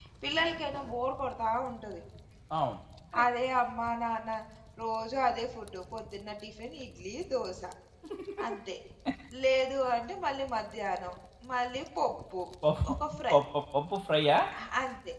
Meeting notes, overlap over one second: none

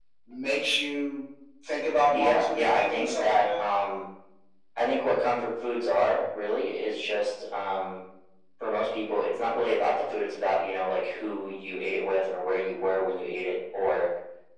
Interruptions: present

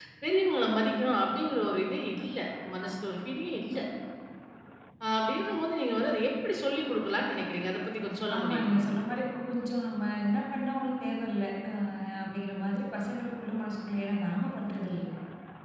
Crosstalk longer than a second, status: none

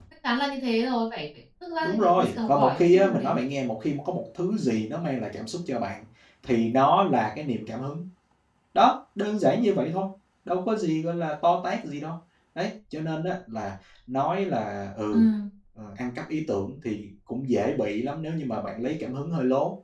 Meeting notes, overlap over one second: present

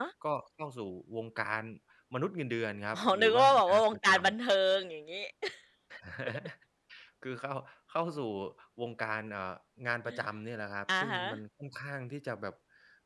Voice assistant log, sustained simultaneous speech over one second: present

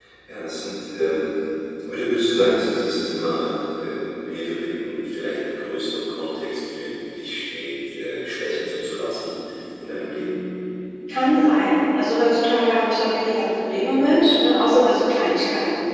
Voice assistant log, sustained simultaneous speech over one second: none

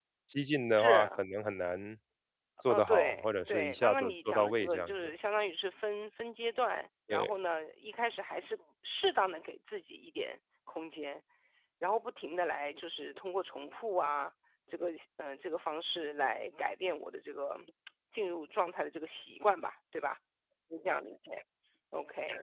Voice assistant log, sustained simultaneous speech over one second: present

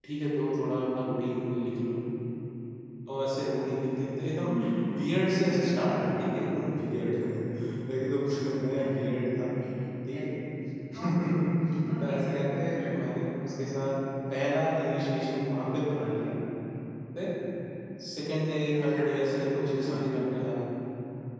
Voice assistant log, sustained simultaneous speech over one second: none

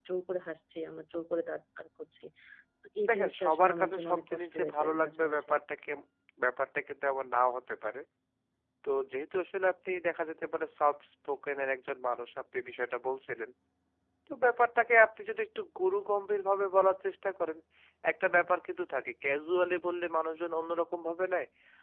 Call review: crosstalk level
present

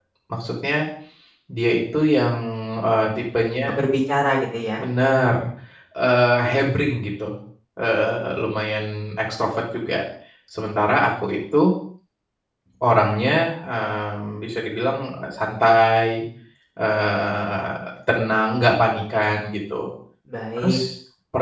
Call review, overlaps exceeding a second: none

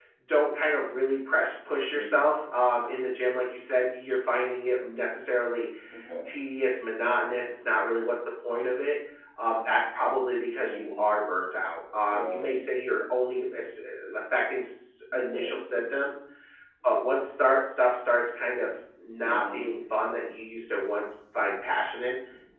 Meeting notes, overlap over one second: none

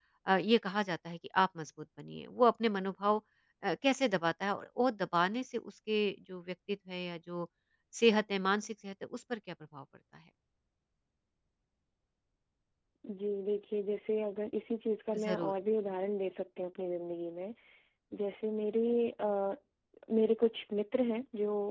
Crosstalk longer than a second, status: none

